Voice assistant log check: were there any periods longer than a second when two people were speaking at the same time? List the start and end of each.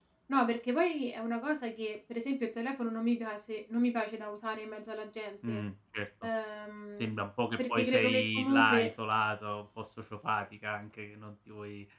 7.7-8.9

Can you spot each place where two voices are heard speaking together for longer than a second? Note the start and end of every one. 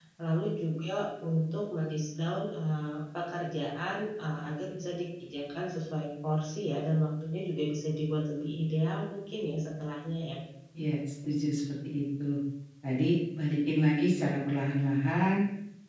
none

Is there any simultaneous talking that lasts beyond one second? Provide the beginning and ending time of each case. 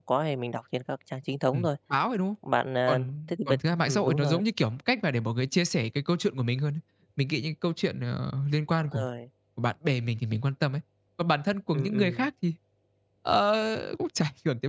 2.9-4.4

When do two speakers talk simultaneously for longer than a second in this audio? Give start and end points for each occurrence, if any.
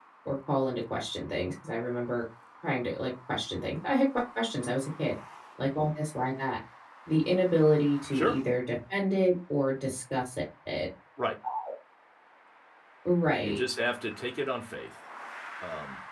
none

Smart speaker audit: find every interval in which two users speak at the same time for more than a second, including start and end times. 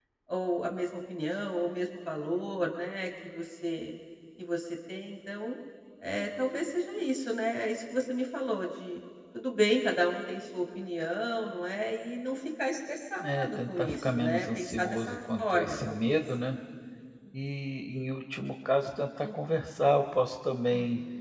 13.2-16.2

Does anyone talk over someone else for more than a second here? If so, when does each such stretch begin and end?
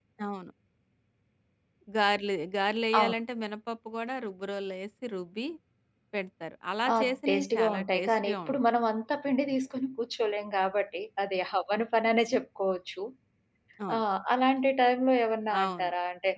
6.9-8.6

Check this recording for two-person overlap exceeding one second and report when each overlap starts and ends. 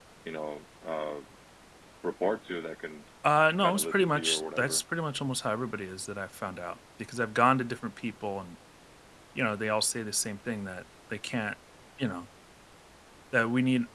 3.6-4.8

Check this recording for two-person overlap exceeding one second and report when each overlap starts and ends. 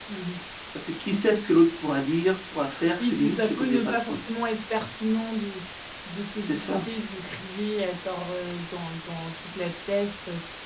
3.0-4.2

